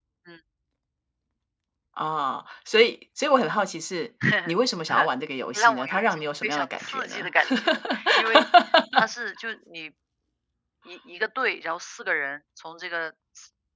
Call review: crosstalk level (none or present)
present